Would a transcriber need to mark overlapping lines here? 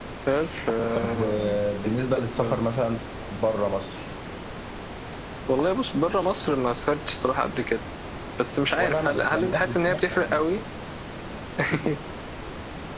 Yes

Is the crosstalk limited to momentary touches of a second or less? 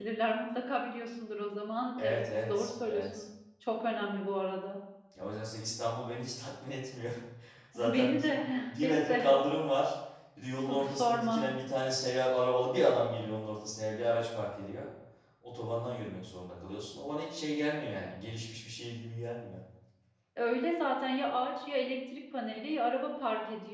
No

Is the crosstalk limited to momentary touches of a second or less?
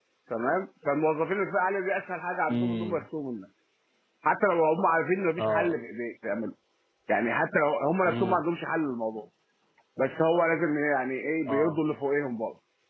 Yes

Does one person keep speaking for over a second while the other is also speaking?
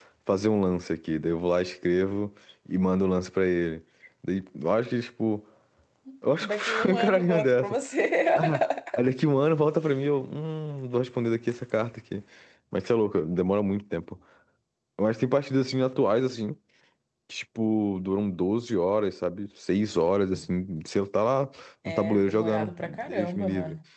Yes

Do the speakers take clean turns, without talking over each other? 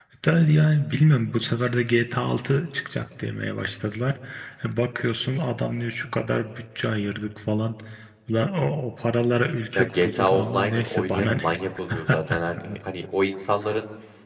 No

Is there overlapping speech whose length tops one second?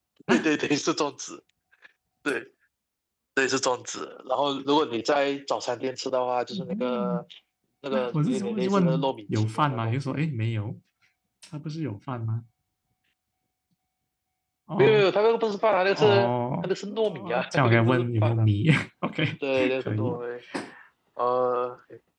Yes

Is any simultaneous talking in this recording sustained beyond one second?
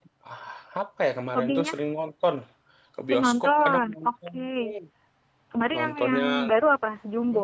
Yes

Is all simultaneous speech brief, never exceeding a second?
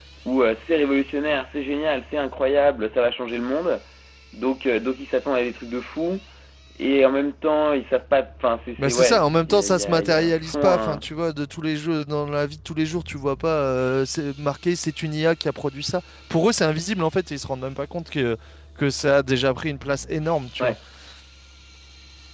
No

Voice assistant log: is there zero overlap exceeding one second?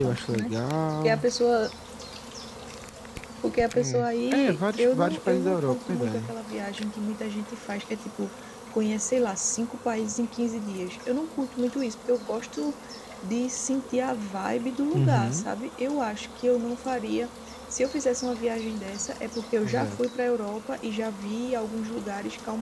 No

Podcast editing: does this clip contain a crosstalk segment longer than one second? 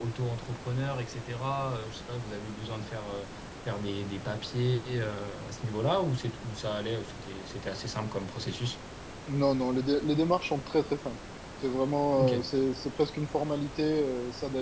No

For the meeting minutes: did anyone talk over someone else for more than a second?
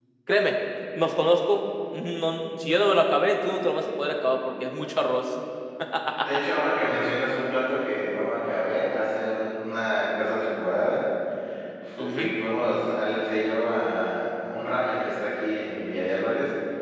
No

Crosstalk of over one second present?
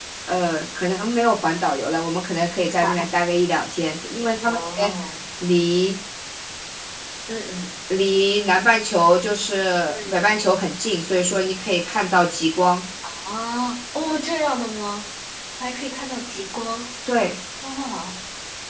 No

